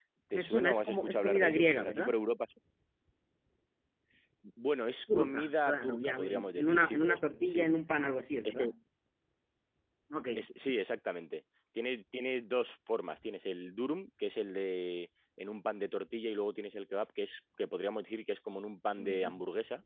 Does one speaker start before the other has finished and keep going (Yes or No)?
Yes